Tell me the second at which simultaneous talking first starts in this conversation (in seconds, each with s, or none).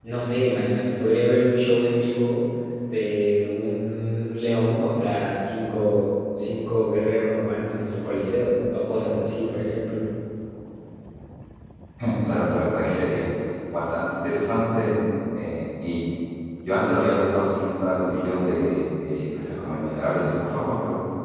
none